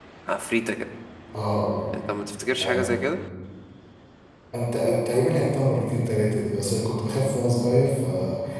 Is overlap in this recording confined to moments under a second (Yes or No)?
Yes